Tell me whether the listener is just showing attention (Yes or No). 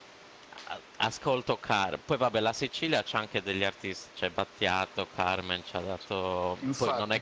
No